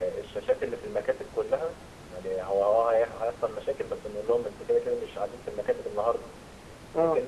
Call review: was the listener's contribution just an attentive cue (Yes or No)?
Yes